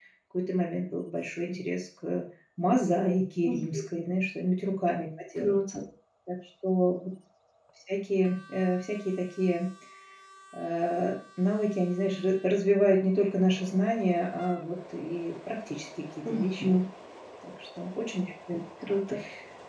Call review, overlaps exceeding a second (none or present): none